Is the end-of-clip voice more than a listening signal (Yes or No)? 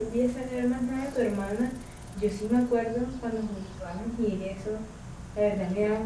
No